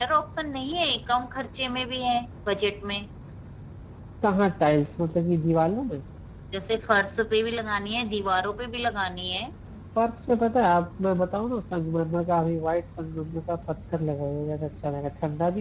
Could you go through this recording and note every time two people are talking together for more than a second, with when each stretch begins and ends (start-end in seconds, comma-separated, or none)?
none